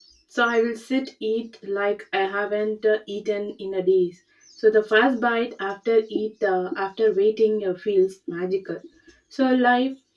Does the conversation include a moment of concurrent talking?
No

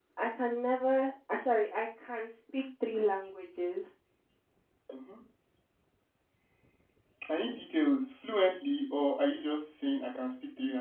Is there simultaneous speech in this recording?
No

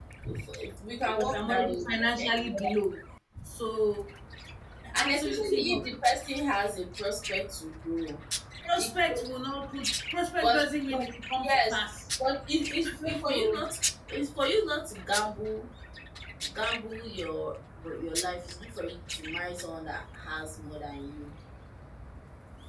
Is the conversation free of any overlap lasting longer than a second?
No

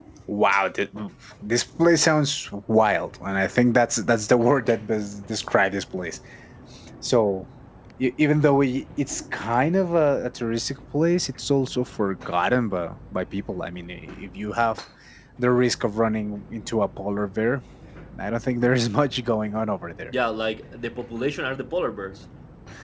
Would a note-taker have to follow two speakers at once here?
No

